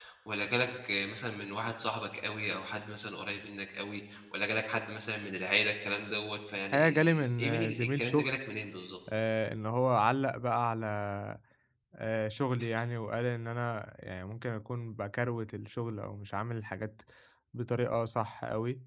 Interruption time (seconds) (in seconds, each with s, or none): 6.7 s